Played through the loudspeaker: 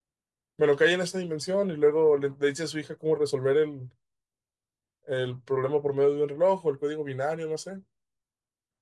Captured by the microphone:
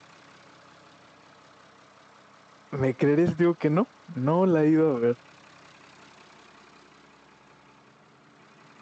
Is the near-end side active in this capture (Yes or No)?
Yes